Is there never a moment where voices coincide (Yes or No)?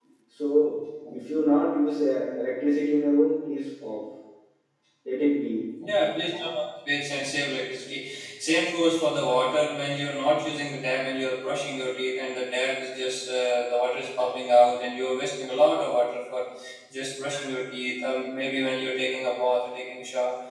Yes